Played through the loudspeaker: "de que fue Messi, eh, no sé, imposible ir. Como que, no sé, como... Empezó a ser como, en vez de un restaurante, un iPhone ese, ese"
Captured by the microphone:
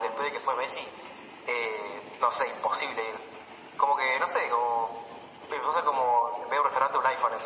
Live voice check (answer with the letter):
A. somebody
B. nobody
B